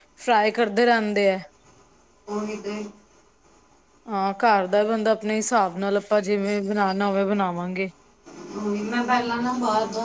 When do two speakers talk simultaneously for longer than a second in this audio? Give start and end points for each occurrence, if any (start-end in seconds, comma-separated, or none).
none